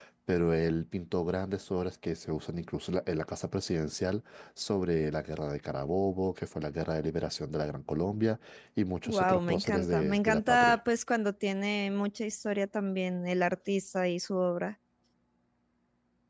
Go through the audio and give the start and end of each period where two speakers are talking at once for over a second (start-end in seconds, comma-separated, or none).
9.1-10.8